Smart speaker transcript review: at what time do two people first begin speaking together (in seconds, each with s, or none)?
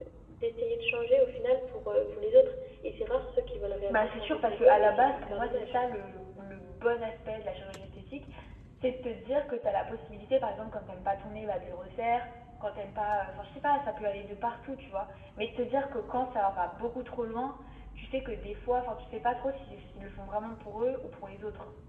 3.9 s